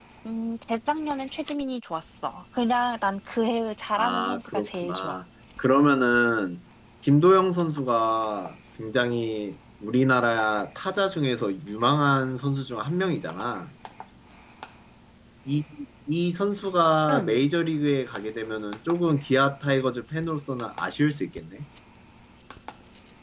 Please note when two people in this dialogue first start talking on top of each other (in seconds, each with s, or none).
4.0 s